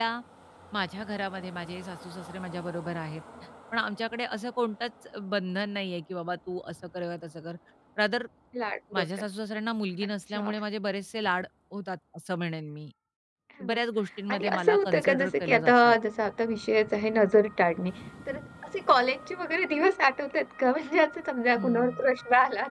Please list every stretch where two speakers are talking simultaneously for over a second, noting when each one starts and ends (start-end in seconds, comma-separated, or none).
14.3-16.0